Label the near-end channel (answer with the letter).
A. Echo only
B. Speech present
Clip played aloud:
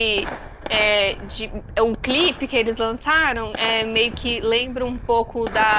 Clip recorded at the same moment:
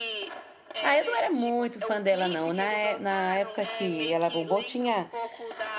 B